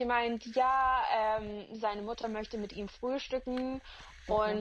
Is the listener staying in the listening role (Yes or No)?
Yes